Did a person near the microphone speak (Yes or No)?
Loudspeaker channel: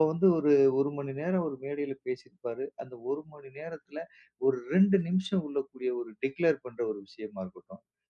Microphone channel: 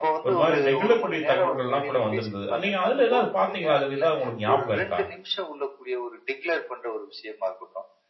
Yes